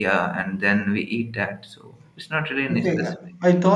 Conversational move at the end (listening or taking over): taking over